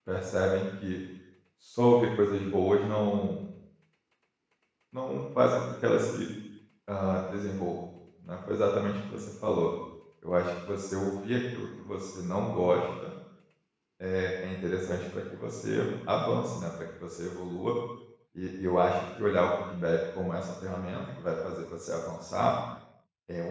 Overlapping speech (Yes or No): No